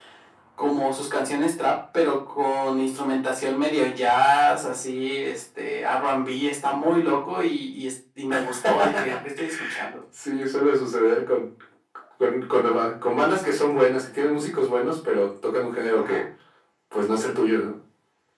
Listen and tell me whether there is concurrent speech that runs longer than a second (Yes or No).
No